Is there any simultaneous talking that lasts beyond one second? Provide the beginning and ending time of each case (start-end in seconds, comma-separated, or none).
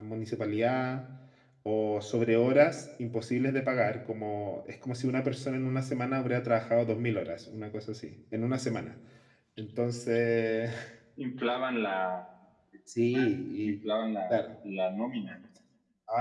none